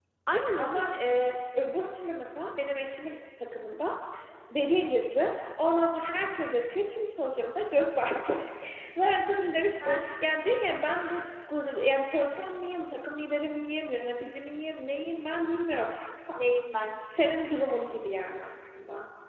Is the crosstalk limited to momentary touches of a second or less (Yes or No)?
Yes